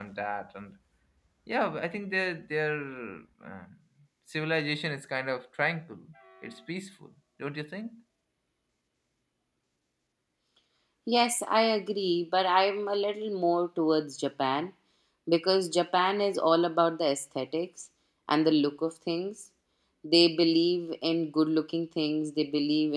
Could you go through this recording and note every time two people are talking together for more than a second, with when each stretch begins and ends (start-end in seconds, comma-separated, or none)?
none